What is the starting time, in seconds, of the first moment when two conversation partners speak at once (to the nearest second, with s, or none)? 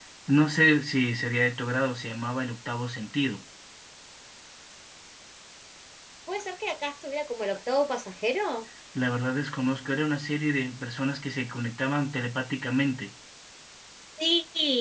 none